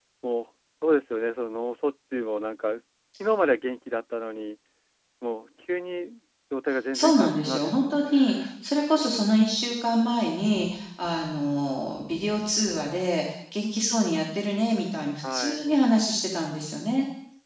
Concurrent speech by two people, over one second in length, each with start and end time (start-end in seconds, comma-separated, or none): 6.9-8.5